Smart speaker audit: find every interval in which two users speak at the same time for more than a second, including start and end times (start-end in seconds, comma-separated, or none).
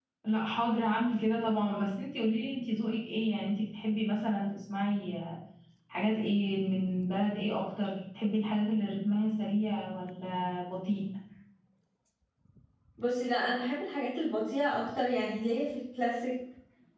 none